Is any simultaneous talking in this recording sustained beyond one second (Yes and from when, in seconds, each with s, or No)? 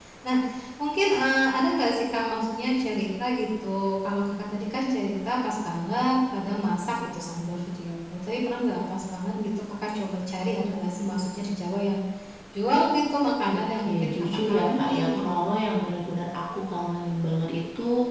Yes, from 13.4 s